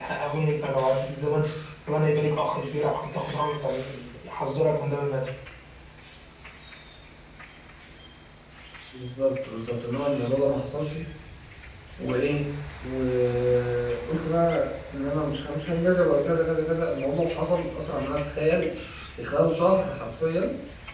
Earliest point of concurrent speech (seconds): none

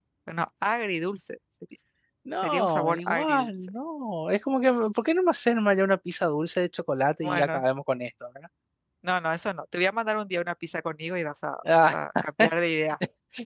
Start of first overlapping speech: 2.4 s

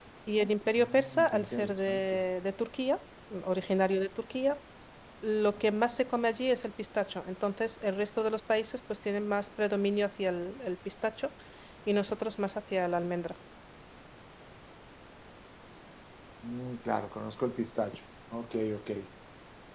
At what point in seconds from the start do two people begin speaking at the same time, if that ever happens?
0.8 s

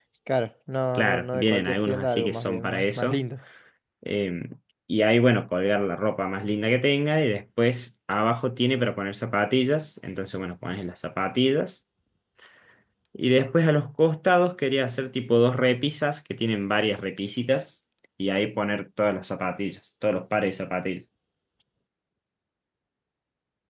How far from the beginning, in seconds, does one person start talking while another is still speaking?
1.0 s

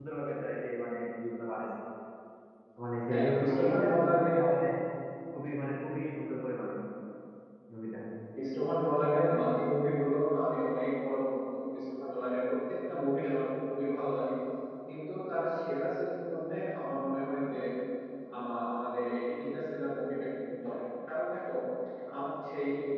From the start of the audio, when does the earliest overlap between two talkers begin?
3.1 s

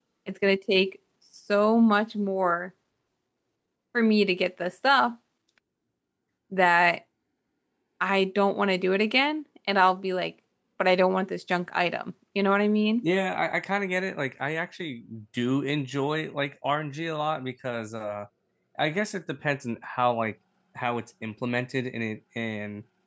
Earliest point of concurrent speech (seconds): none

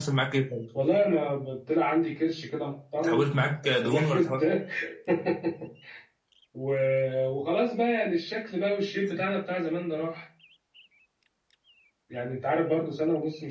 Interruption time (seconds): 3.0 s

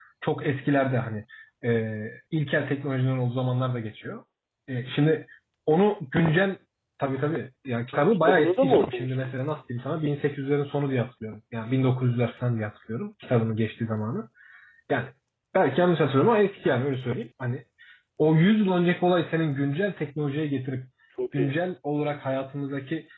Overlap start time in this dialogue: 7.9 s

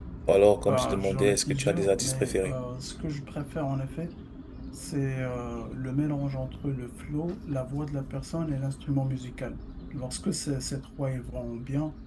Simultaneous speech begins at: 0.7 s

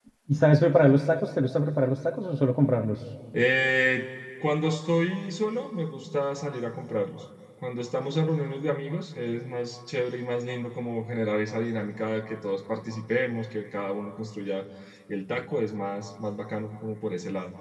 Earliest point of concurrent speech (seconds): none

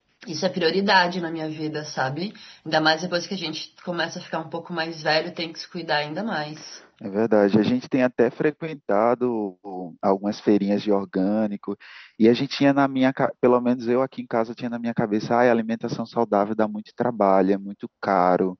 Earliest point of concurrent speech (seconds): none

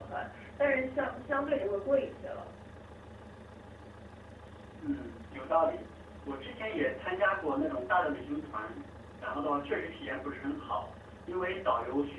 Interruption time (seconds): none

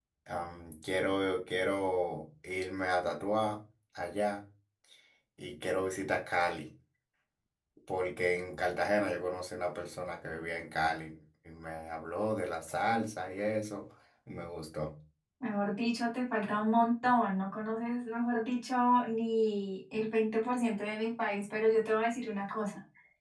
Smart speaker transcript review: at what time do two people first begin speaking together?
none

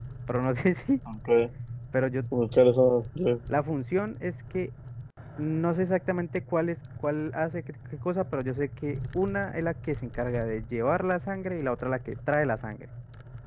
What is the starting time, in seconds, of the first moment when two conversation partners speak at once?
none

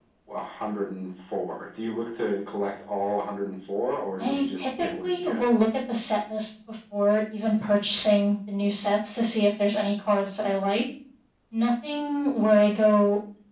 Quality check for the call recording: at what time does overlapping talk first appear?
4.2 s

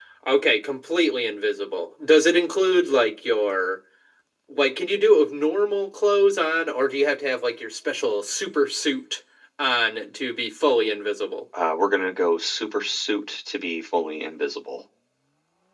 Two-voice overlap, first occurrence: none

